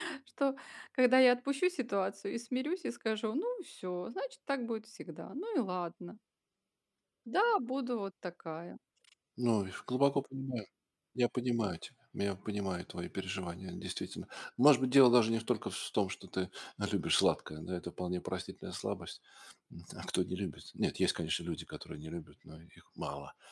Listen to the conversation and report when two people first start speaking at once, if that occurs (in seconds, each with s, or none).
none